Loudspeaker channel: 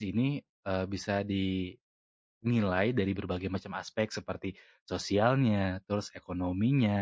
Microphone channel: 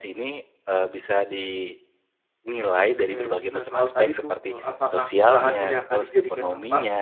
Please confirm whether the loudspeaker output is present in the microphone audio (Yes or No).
Yes